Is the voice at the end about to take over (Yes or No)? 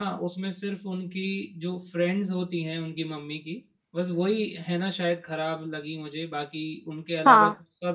No